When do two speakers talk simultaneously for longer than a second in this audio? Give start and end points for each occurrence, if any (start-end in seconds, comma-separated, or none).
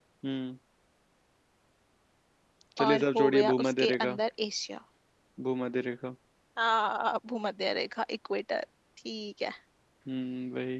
2.9-4.2